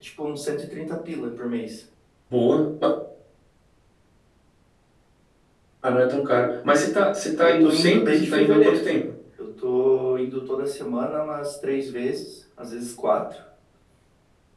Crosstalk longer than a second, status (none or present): present